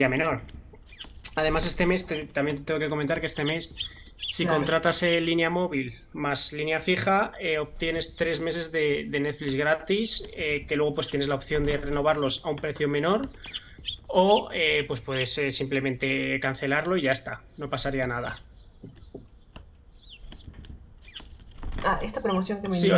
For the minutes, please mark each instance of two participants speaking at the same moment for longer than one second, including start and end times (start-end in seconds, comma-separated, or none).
none